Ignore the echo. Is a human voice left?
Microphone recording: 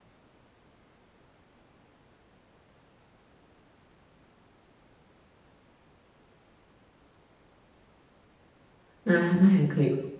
Yes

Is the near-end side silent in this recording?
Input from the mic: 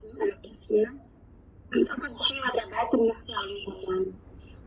Yes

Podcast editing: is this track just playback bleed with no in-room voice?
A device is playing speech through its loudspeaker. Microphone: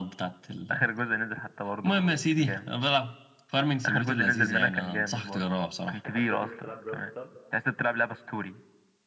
No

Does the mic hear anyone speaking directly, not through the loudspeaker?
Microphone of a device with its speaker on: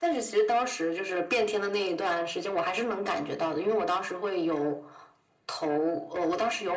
No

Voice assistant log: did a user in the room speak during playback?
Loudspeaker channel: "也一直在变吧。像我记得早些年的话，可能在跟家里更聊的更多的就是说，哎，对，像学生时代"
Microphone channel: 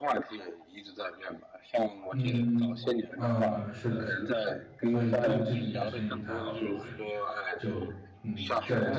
Yes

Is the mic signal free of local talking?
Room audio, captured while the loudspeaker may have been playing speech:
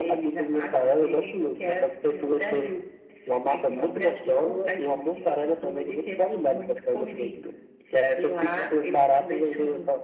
Yes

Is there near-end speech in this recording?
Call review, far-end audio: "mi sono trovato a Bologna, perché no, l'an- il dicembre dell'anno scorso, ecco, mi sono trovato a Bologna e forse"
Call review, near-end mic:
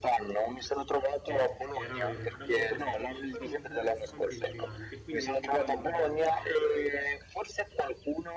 Yes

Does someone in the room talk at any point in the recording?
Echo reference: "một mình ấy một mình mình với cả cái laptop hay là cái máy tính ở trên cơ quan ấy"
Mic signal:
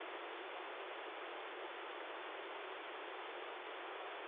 No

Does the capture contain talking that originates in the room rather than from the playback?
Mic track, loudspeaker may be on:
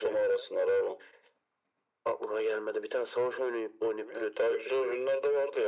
No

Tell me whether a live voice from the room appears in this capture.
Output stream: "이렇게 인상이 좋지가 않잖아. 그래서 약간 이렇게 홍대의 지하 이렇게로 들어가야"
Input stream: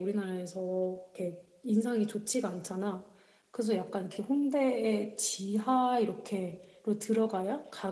No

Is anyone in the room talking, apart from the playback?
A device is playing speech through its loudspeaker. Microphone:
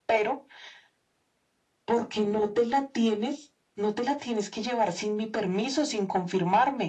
No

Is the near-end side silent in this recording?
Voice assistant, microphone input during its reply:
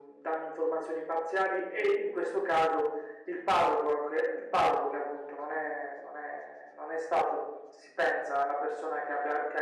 Yes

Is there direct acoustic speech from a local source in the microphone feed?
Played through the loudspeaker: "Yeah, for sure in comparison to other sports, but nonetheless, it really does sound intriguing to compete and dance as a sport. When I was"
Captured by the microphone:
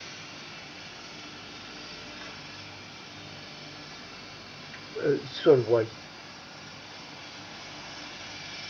Yes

